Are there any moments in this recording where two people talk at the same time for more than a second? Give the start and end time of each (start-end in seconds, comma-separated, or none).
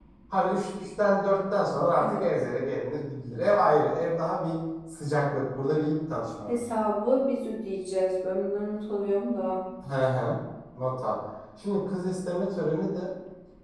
none